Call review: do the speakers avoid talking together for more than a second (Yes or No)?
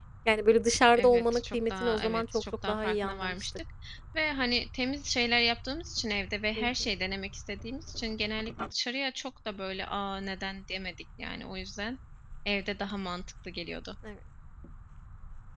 No